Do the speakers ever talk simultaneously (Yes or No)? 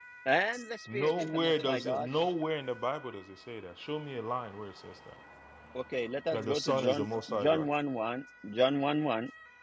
Yes